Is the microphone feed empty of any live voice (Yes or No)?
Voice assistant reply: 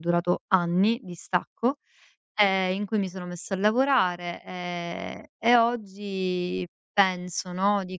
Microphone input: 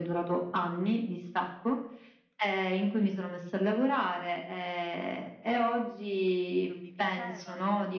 No